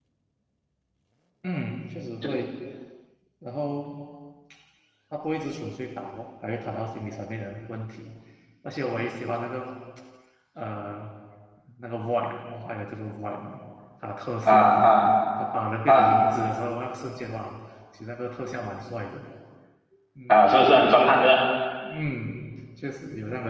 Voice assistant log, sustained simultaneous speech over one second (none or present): none